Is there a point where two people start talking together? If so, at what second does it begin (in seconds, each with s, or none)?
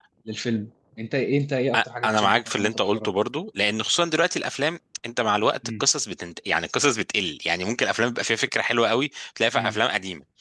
1.7 s